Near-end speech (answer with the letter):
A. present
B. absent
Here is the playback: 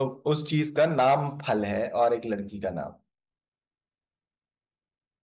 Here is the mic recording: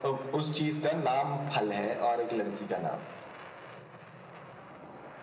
B